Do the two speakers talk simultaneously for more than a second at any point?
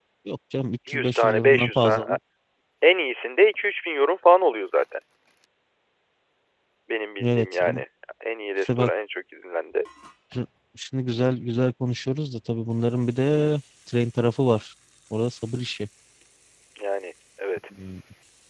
Yes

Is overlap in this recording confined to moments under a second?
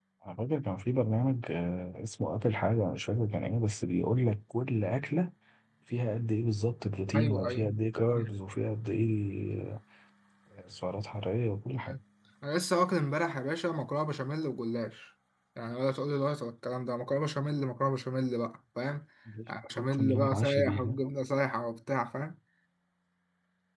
No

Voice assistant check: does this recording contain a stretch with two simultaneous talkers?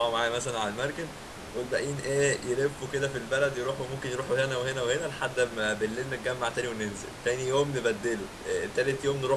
No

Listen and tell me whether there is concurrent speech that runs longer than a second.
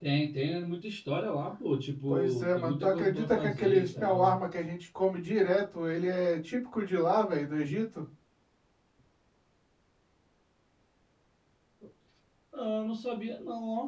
Yes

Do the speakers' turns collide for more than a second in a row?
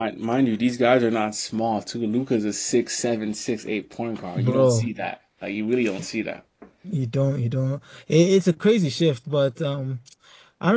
No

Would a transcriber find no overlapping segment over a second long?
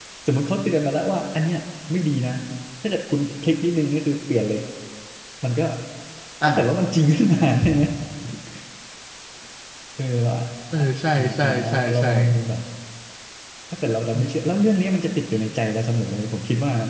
No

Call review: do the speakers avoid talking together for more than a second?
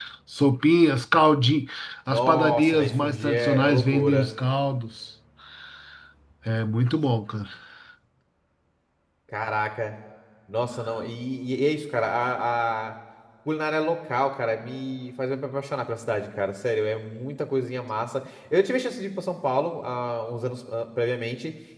No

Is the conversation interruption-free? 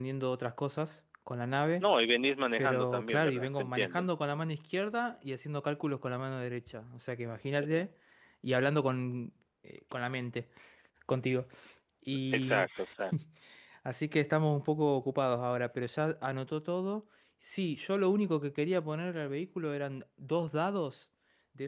No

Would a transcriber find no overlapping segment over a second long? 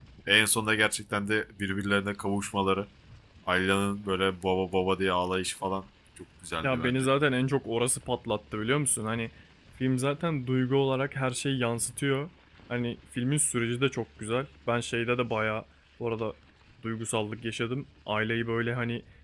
Yes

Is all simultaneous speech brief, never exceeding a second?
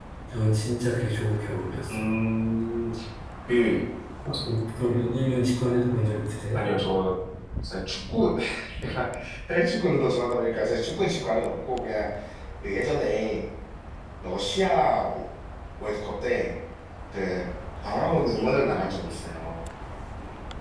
Yes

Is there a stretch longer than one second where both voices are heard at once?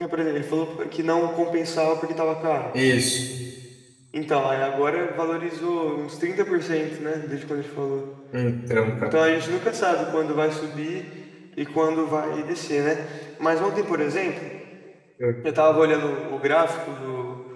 No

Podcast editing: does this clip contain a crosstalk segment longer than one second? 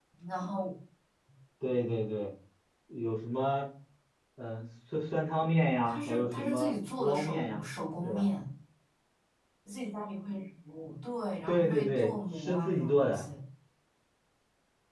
Yes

